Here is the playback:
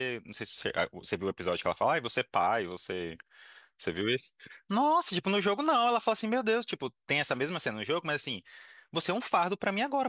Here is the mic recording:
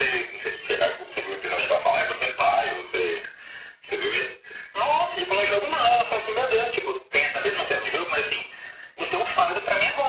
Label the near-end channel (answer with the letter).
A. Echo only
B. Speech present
A